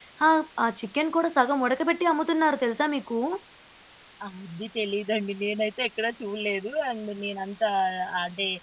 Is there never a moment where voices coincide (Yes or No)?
Yes